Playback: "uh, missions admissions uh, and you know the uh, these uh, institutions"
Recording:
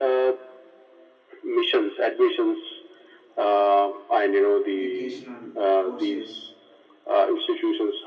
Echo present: Yes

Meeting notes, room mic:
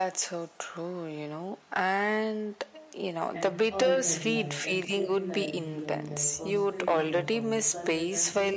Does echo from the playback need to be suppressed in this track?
Yes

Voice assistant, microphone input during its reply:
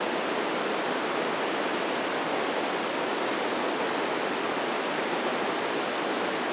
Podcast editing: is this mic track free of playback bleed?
Yes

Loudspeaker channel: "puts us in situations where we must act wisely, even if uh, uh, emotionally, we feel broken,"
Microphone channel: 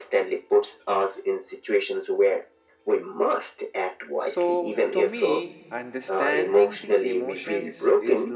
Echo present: Yes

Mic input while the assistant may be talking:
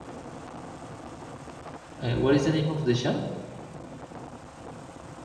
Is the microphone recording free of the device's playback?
Yes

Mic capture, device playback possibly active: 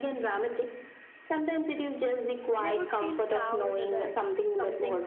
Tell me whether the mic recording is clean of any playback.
No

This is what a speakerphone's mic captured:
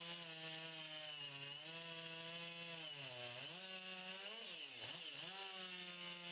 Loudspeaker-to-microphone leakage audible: No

